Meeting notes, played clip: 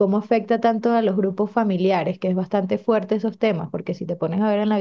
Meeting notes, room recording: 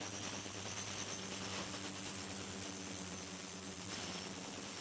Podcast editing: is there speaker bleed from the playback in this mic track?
No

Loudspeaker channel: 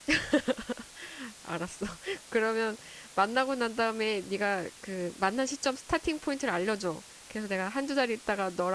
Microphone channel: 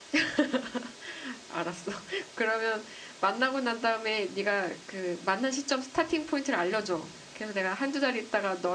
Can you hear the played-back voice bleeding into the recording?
Yes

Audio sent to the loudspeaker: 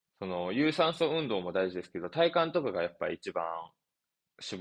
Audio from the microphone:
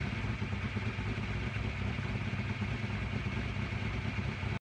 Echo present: No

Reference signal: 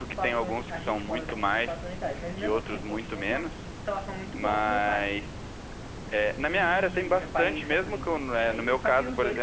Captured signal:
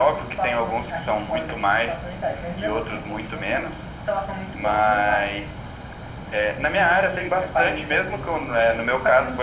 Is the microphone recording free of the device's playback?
No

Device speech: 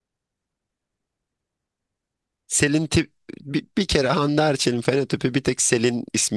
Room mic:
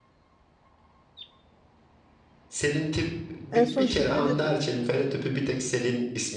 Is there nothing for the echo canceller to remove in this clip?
No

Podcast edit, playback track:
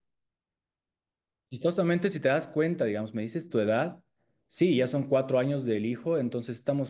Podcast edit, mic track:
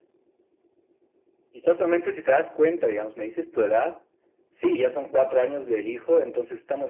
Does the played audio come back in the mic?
Yes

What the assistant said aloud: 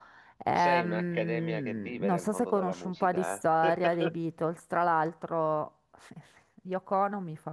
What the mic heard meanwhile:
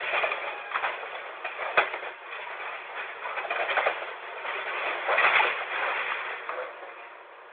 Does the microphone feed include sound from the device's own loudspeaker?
No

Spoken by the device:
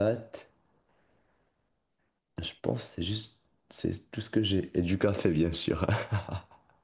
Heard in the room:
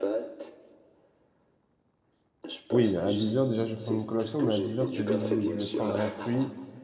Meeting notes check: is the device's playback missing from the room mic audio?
No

